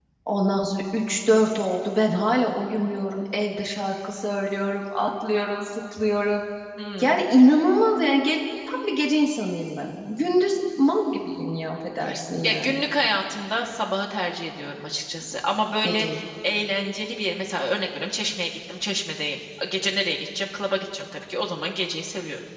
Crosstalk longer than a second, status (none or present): none